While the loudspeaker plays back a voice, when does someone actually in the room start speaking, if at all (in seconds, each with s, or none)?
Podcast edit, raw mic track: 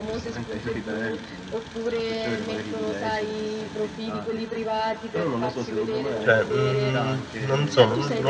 6.2 s